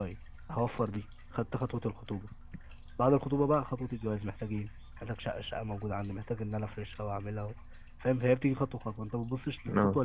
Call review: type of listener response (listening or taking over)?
listening